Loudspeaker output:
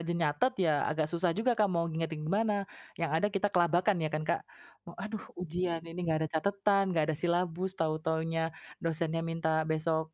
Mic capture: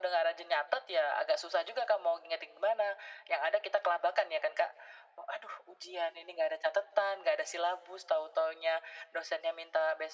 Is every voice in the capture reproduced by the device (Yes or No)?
Yes